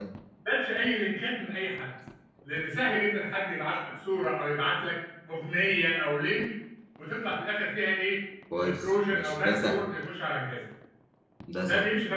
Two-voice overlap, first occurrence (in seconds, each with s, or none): 8.6 s